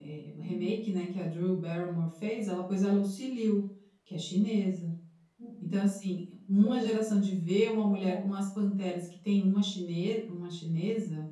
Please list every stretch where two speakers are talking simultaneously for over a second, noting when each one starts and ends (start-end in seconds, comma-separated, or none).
none